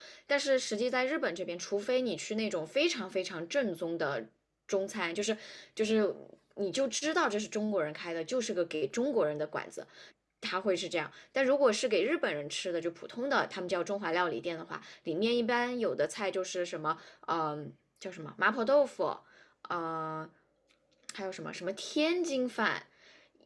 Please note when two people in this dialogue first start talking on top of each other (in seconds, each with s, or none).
none